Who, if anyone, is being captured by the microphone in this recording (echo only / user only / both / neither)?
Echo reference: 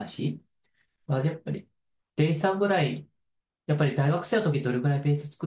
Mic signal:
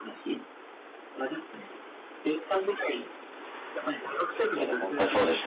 both